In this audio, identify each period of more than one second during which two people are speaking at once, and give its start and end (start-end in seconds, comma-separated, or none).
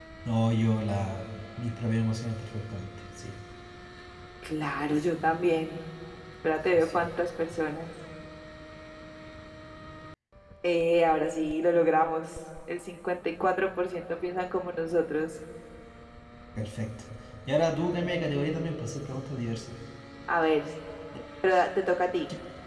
none